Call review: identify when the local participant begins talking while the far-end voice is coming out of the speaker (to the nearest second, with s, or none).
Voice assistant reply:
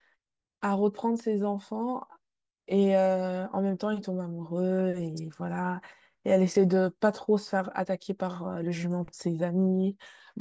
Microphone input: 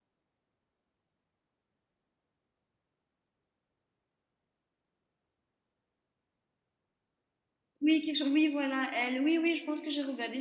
8 s